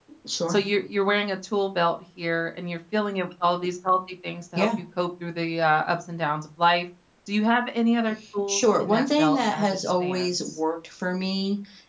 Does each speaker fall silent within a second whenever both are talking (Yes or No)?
No